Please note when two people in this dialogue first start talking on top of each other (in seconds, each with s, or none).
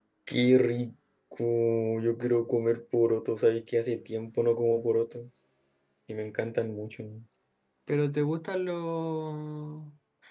none